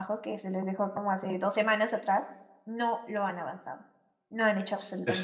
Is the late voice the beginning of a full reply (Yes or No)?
Yes